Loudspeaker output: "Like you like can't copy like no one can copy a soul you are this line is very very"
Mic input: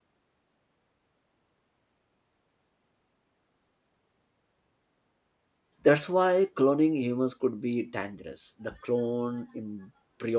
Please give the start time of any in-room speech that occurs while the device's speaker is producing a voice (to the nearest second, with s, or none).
6 s